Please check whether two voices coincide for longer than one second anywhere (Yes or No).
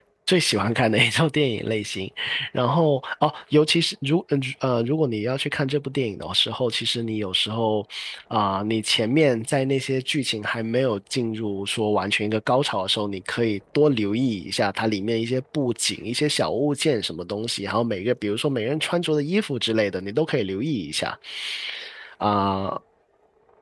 No